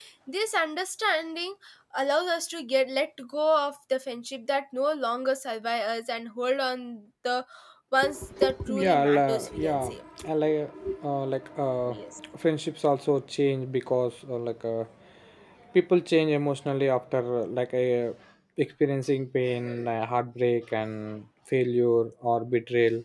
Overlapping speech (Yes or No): Yes